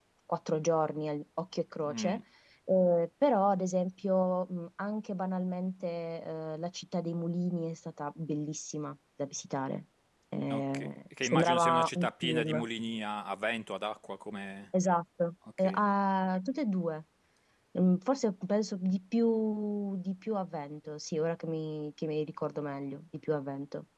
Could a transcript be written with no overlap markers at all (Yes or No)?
No